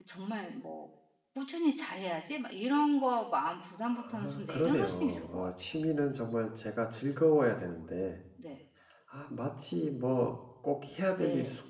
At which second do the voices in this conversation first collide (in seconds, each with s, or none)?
3.9 s